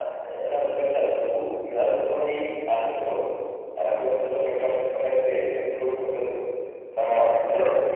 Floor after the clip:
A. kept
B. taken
A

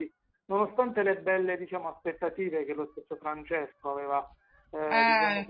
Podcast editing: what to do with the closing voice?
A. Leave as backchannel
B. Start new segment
A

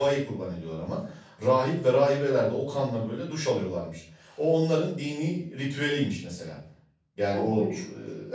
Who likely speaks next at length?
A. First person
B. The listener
A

